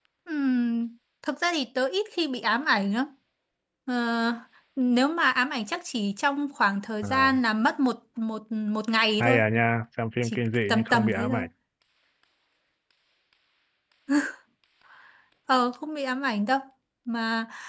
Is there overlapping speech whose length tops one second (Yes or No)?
Yes